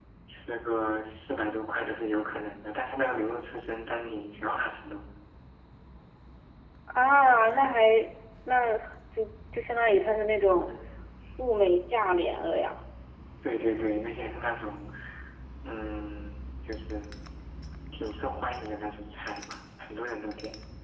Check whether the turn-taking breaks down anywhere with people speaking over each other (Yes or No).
No